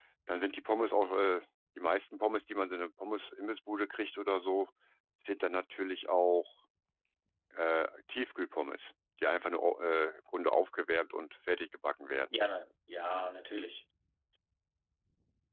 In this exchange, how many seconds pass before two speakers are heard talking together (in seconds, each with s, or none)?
none